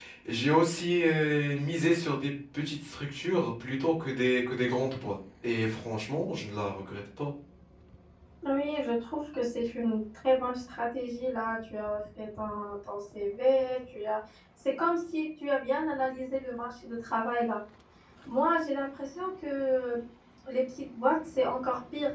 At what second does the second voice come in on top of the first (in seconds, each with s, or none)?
none